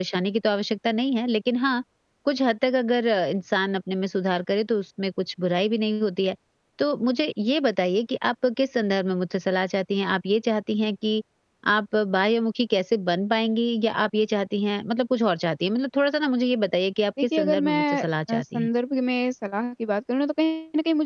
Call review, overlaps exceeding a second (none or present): present